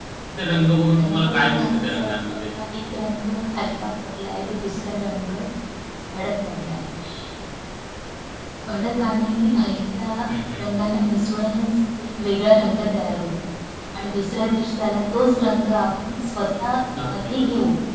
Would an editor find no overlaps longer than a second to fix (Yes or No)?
No